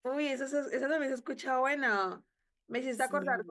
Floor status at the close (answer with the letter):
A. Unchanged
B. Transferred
A